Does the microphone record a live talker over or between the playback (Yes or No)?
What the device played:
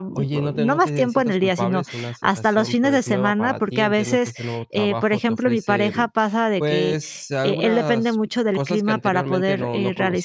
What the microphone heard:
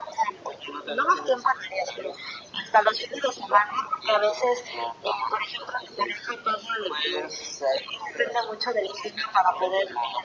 No